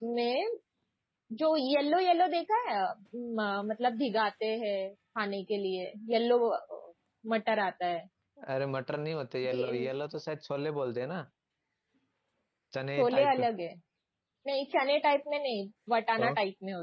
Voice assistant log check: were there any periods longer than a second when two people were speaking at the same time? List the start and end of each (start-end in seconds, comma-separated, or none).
none